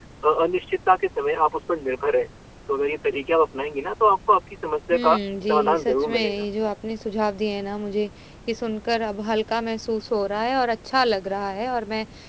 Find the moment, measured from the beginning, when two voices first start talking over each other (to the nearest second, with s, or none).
5 s